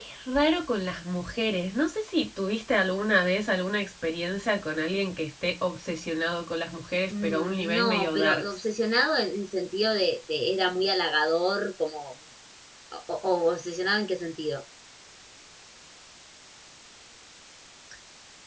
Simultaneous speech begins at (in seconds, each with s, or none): 7.1 s